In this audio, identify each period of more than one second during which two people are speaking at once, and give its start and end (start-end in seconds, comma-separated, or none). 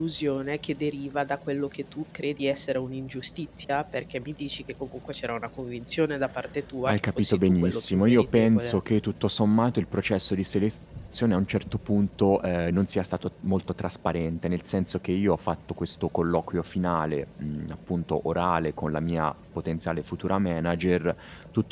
6.8-8.8